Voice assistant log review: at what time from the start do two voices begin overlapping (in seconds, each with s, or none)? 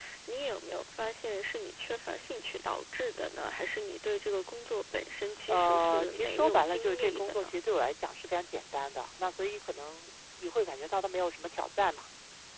5.5 s